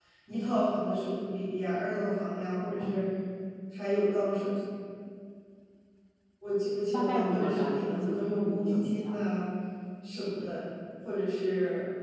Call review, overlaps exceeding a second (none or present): present